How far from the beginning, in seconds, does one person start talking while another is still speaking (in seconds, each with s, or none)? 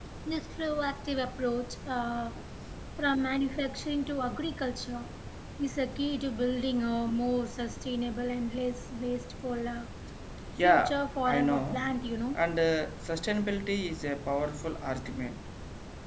10.6 s